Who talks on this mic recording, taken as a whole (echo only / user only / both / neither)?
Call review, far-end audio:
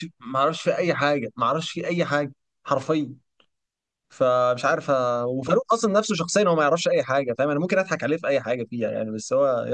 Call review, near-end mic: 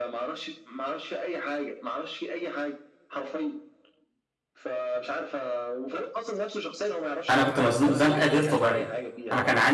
both